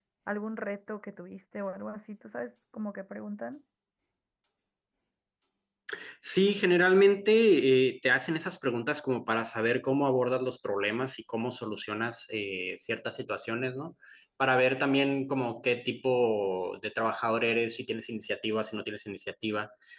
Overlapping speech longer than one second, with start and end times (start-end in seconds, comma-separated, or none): none